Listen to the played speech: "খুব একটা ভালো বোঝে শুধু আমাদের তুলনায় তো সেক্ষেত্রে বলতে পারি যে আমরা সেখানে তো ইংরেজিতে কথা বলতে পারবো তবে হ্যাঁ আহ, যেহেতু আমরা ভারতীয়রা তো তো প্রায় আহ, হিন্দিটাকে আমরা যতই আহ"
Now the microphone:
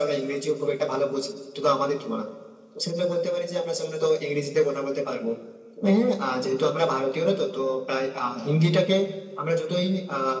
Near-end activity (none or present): none